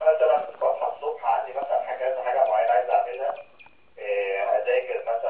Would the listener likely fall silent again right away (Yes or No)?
Yes